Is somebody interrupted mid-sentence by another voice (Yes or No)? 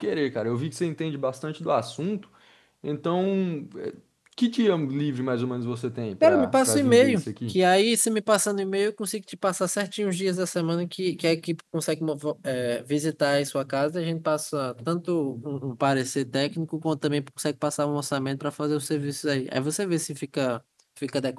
Yes